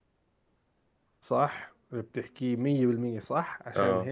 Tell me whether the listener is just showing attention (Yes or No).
Yes